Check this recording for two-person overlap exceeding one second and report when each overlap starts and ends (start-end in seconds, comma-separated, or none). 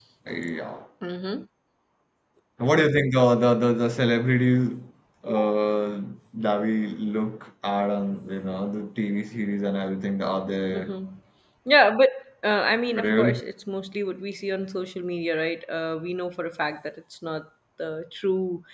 none